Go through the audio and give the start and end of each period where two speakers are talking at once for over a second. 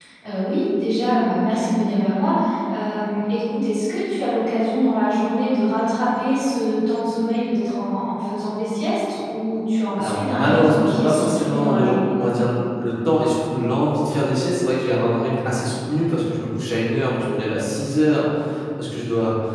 10.0-11.9

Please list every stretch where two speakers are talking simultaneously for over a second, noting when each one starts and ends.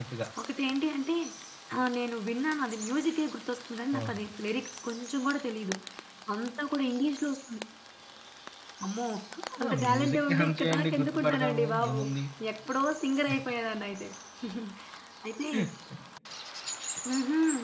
9.7-12.0

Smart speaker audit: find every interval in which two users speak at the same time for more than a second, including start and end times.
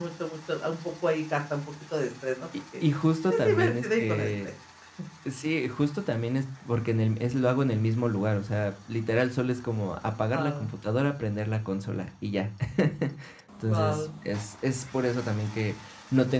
3.3-4.5

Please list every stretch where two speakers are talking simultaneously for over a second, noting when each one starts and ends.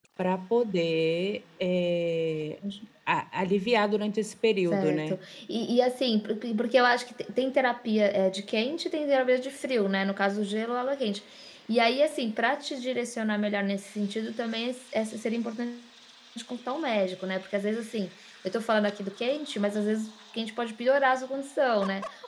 none

